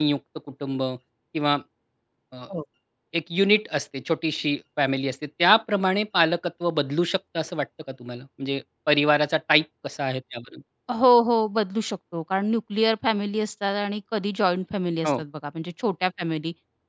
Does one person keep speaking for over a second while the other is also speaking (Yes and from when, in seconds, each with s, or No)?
No